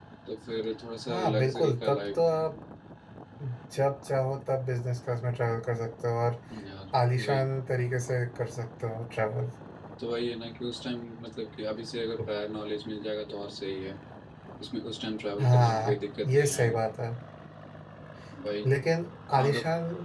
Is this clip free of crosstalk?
No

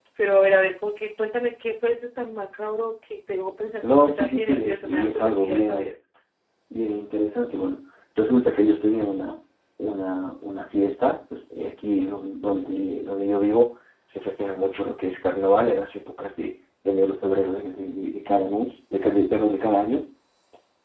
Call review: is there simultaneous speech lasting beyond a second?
Yes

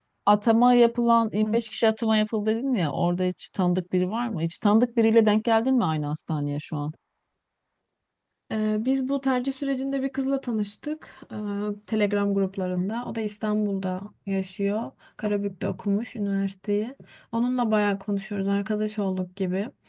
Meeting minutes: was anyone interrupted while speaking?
No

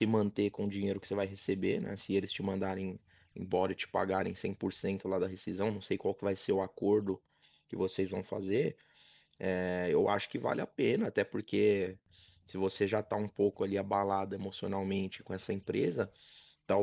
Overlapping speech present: No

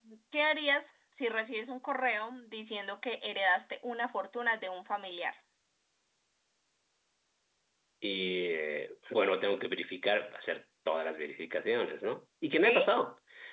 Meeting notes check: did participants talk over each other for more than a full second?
No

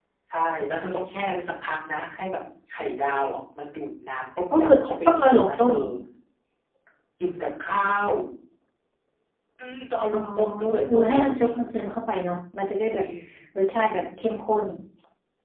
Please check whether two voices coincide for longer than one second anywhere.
Yes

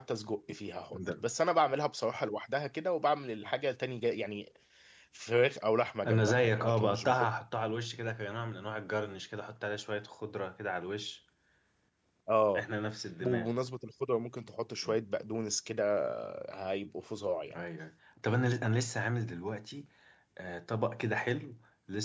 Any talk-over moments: Yes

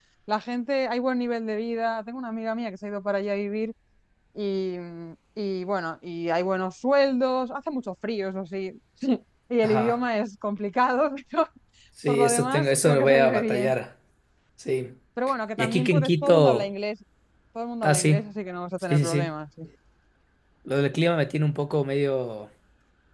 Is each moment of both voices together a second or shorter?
No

